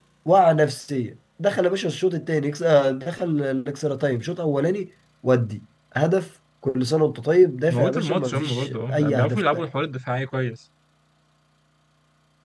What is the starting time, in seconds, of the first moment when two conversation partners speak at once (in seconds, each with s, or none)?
7.7 s